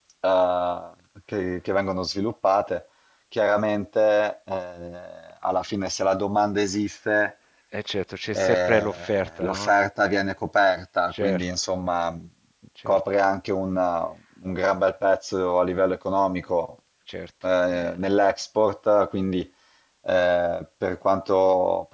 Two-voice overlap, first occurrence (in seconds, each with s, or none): 8.3 s